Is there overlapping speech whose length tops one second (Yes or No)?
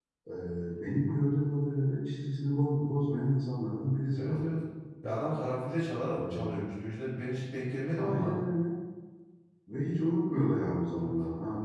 No